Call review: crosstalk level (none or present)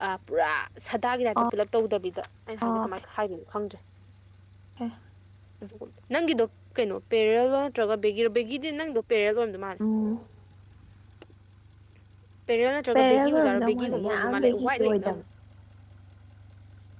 present